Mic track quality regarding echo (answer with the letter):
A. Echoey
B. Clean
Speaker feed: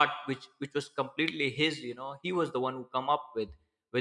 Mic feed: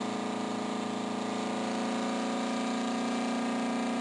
B